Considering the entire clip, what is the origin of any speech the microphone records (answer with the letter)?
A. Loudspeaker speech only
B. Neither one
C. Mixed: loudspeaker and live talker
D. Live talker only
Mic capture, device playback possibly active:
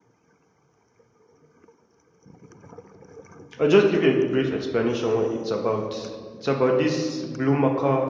D